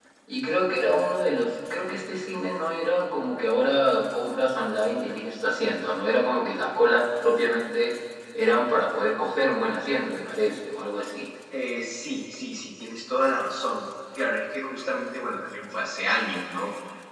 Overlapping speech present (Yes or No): No